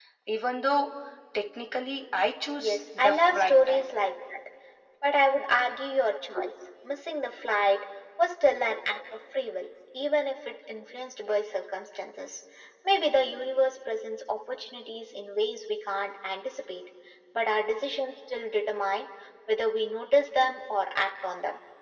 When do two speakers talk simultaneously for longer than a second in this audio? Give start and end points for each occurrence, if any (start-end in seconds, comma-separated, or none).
2.6-3.8